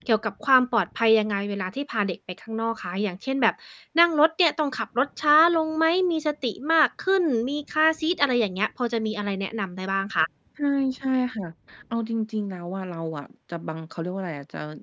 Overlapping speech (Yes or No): No